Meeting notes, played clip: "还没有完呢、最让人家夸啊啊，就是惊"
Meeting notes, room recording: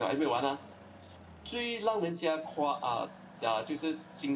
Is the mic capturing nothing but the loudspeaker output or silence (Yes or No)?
Yes